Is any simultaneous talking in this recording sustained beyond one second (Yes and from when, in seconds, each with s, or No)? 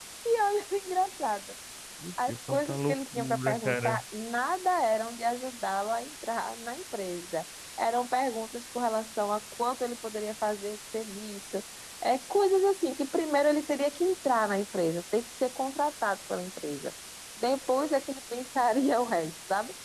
Yes, from 2.3 s